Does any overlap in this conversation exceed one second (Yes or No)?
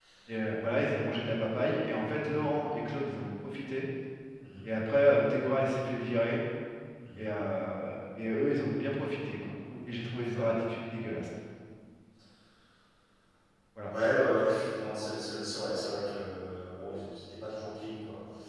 No